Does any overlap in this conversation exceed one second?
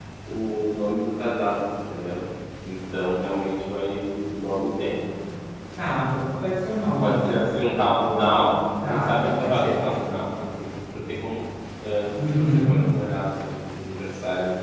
Yes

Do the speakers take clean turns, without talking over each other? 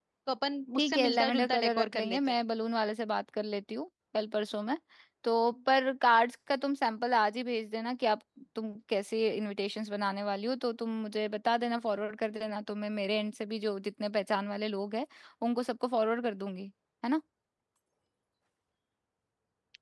No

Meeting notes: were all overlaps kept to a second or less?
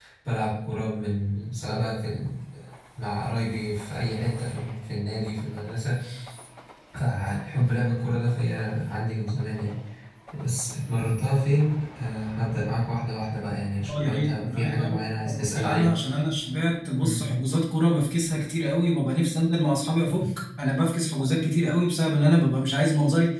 No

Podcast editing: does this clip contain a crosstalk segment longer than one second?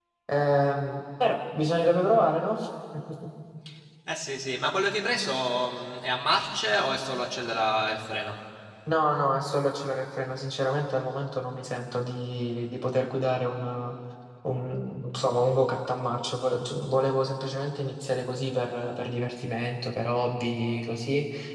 No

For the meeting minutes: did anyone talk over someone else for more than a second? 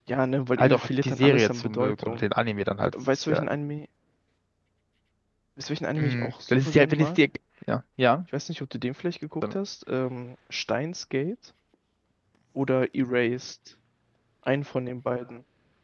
Yes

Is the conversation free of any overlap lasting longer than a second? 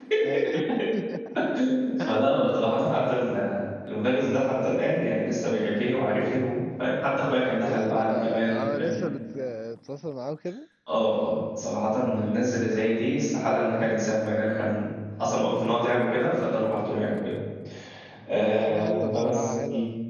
No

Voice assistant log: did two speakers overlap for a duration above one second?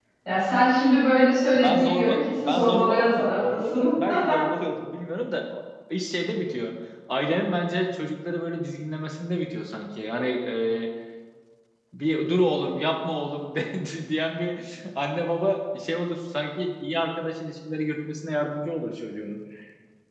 Yes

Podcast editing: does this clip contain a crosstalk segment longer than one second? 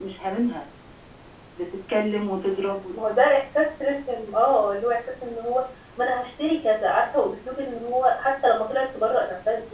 No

